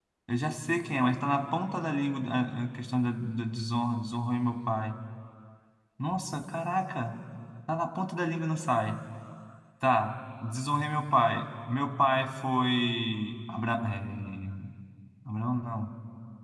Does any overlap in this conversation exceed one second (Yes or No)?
No